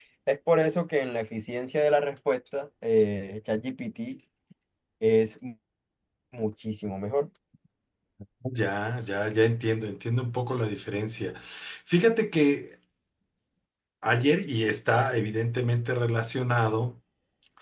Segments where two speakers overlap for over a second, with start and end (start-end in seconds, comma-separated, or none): none